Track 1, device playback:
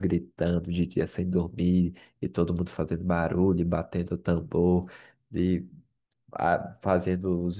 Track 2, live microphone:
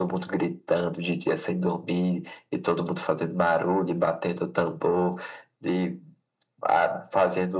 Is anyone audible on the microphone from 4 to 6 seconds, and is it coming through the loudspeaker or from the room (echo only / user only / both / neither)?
echo only